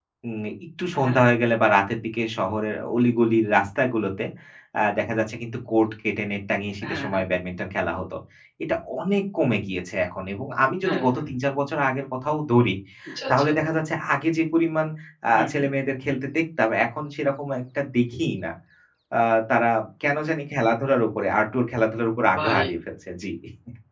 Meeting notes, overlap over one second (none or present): none